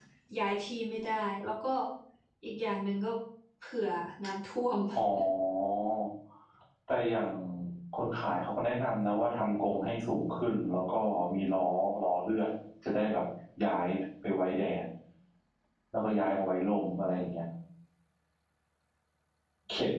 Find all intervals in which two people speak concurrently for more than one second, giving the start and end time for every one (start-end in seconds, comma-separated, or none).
none